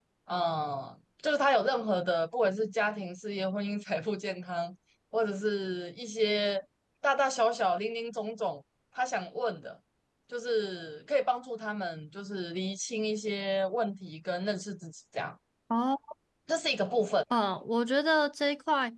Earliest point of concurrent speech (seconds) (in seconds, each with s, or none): none